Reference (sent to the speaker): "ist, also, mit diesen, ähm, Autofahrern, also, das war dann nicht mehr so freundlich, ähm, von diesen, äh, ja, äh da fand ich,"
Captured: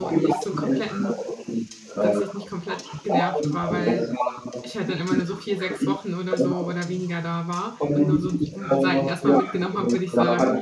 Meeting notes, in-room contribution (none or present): present